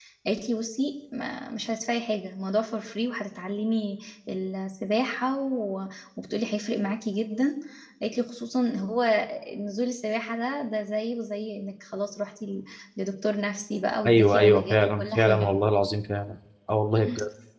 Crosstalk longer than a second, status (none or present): present